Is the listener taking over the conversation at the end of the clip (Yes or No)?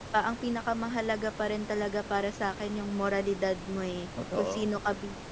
No